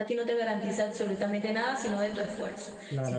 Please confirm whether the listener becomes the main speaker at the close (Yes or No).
Yes